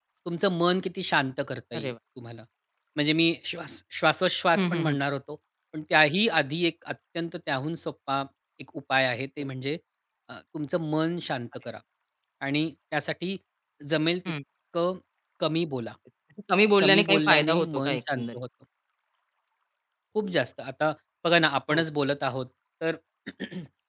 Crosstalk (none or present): present